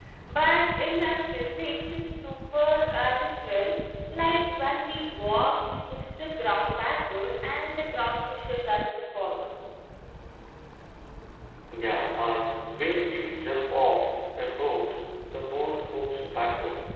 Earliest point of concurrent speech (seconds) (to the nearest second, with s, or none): none